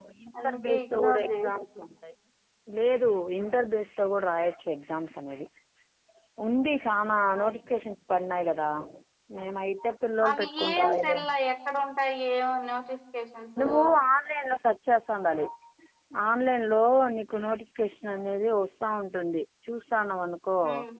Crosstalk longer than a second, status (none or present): present